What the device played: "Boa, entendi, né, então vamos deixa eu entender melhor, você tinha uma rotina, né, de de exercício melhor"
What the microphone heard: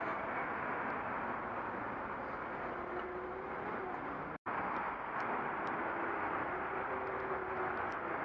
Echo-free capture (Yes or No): Yes